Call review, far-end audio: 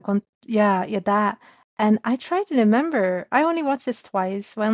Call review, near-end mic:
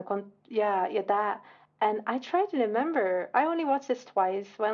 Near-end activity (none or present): none